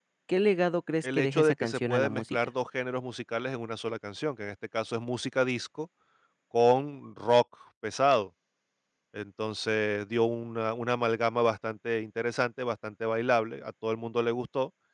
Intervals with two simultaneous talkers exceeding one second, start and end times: 1.0-2.4

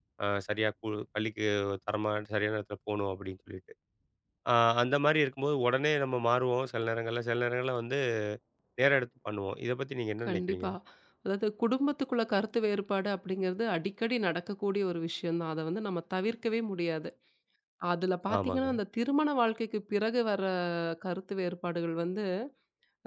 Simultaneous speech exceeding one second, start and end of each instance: none

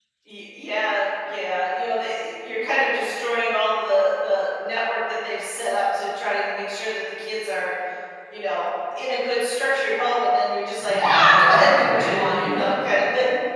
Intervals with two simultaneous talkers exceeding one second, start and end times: 10.8-12.7

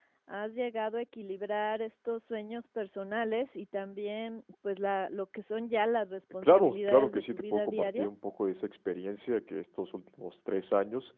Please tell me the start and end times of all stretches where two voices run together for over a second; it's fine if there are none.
6.4-8.1

